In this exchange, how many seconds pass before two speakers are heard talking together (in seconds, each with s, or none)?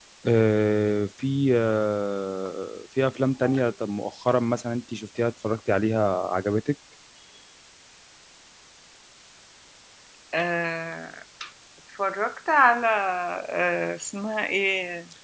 none